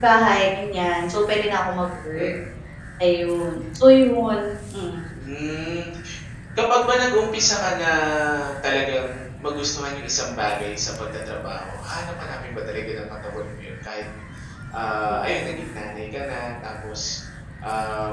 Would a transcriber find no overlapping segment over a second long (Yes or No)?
Yes